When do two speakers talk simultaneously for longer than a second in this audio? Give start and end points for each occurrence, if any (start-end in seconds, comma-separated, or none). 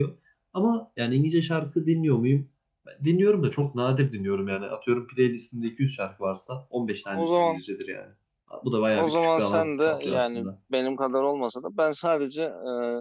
8.9-10.5